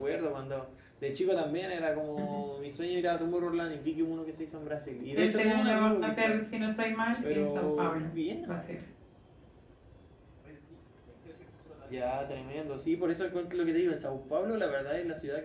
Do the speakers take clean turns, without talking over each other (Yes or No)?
No